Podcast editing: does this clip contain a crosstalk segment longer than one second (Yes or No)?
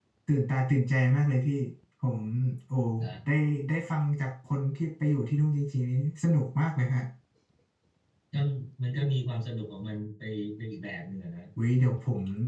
No